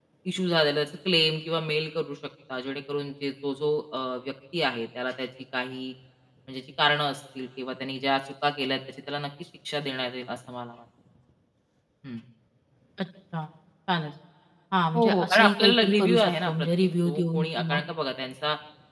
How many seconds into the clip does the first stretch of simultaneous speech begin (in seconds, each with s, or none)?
14.9 s